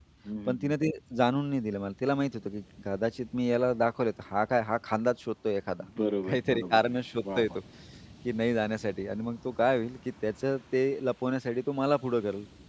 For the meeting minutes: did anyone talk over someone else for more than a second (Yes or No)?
Yes